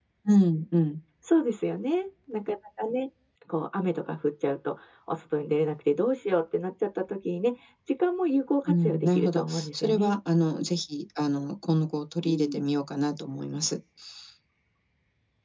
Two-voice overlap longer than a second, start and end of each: 8.7-10.2

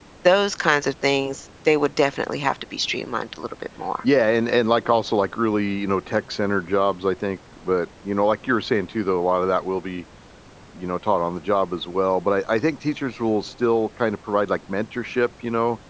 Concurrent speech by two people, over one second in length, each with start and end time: none

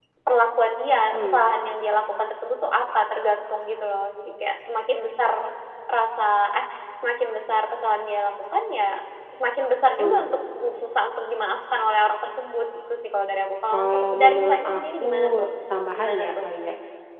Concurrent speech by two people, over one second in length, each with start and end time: 13.7-15.5

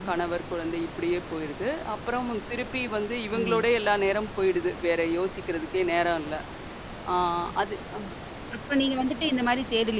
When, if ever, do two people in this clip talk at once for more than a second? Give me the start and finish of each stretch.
none

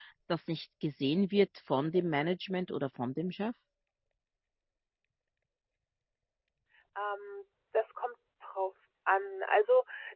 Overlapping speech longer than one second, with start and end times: none

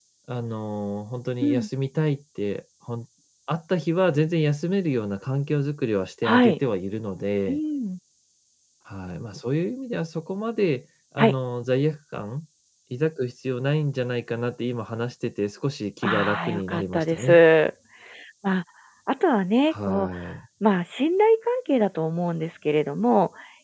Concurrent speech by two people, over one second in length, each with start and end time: 16.0-17.4

